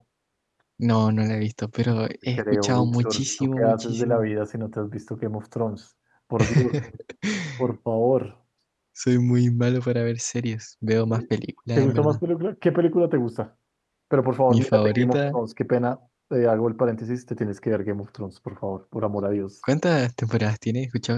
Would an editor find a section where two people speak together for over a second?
Yes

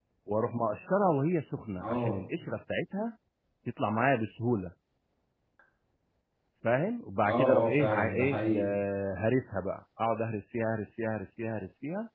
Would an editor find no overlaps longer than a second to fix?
No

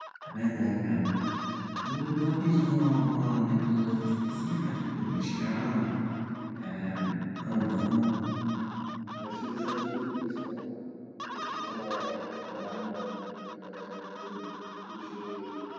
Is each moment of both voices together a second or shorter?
Yes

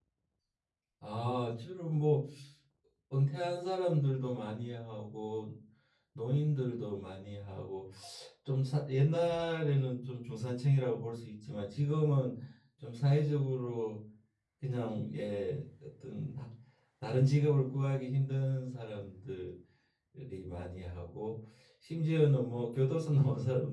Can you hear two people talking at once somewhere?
No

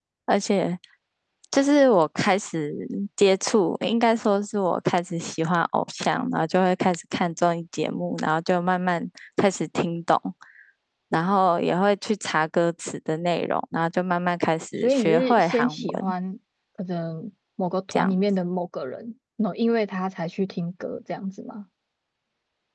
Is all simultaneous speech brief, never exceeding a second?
No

